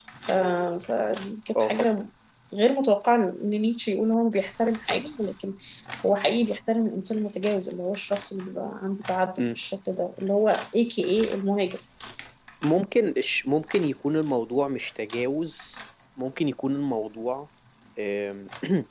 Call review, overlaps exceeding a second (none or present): none